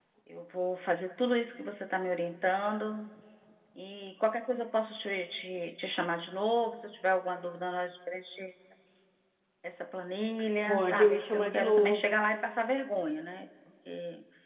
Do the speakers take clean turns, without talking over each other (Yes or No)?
No